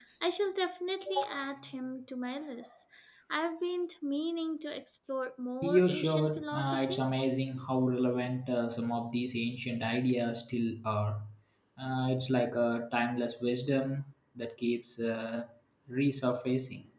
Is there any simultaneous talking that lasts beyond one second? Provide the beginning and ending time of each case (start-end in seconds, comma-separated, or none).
5.6-7.0